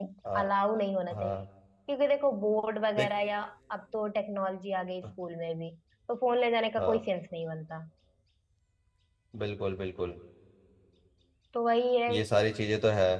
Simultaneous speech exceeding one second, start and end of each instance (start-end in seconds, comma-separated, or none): none